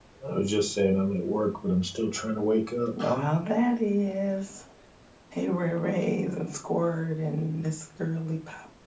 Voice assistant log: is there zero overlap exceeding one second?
Yes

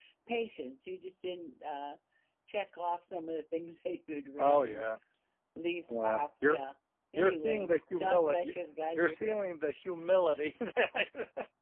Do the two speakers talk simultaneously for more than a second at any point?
Yes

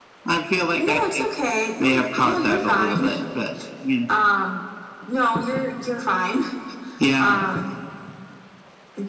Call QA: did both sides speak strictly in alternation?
No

